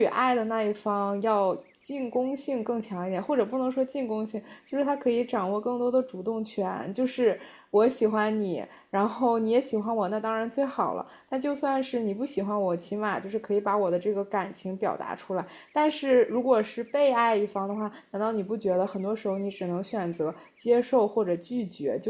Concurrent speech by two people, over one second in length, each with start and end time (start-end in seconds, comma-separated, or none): none